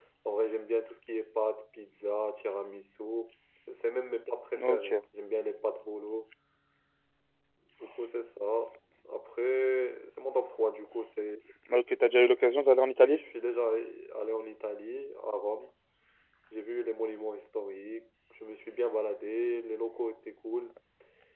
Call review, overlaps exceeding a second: none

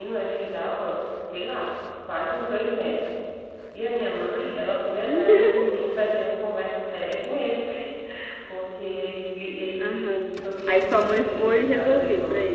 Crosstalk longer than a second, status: present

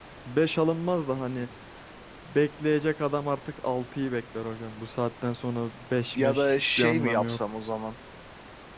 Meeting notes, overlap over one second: present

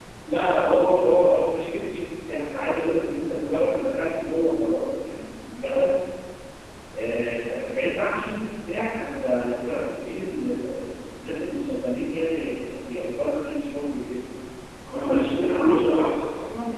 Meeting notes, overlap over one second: present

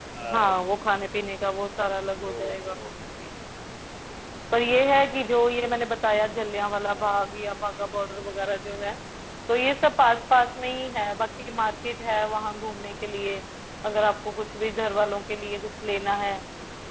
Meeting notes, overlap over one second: none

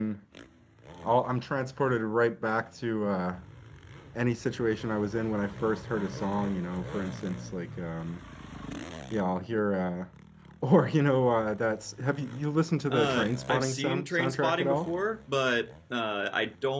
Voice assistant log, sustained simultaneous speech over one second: present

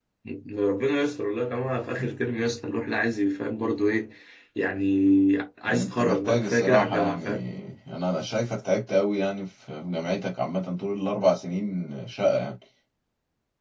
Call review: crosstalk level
present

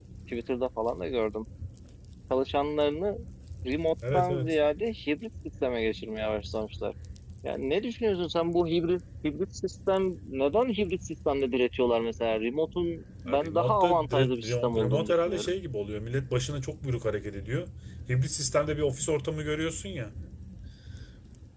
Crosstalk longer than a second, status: present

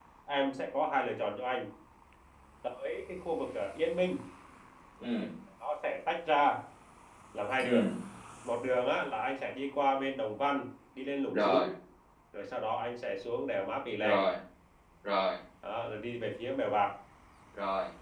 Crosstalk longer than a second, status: none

